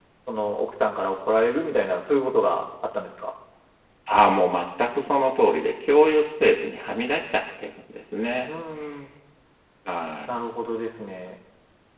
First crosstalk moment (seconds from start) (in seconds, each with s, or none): none